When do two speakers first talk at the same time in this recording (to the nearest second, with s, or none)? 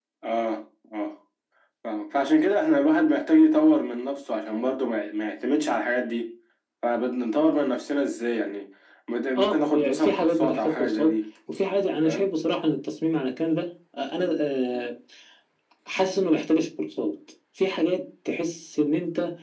9 s